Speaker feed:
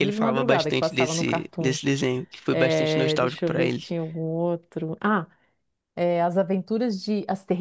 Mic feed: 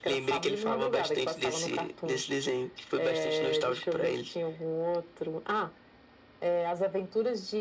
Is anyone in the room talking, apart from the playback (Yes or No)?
No